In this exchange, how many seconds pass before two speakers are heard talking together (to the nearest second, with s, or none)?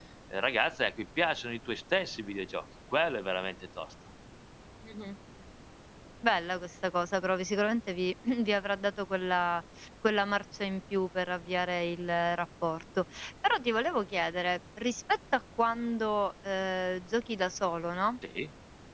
none